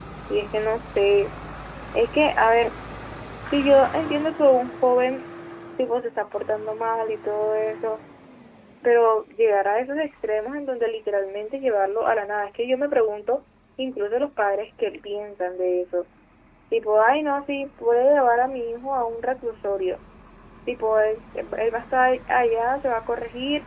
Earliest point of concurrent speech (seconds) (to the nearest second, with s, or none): none